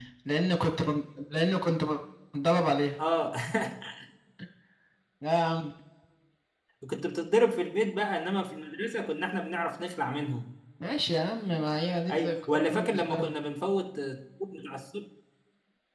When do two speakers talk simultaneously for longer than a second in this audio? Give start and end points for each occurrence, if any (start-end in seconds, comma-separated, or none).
12.1-13.3